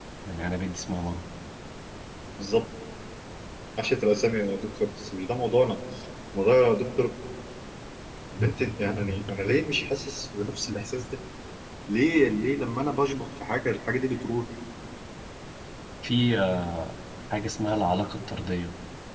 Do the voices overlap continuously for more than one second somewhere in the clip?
No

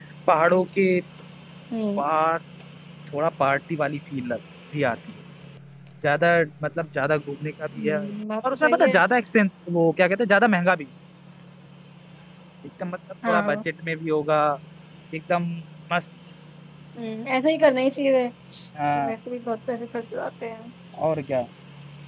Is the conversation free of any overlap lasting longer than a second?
Yes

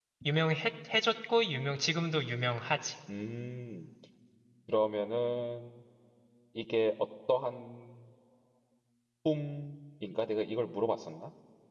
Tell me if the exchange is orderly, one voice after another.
Yes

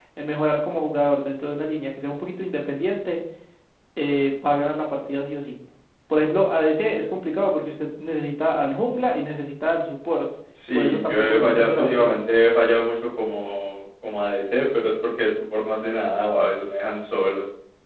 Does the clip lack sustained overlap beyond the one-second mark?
No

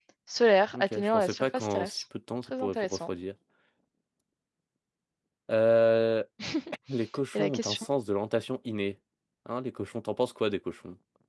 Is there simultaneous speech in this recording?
Yes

